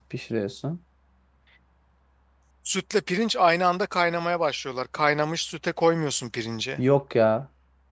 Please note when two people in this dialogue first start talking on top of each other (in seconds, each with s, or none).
none